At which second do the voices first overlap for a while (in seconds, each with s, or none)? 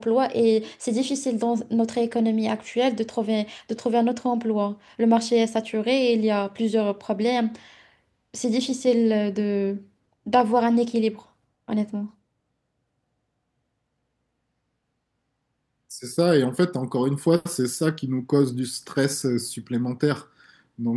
none